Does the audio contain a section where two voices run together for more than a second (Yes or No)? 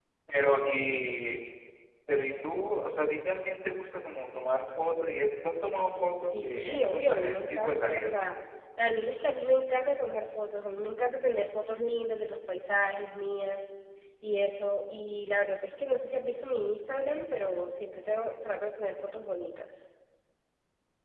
Yes